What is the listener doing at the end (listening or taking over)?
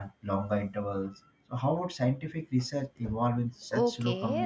taking over